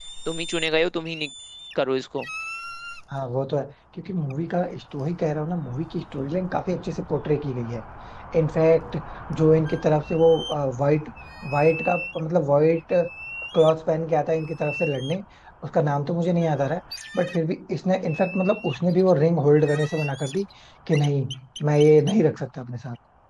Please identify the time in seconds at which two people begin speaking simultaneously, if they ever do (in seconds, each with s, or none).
none